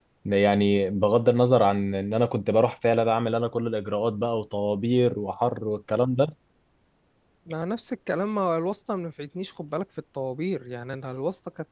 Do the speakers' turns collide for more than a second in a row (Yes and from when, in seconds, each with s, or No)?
No